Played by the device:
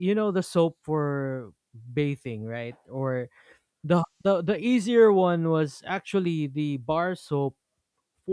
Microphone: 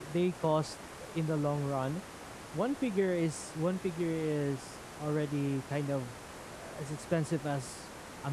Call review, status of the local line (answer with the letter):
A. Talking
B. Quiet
A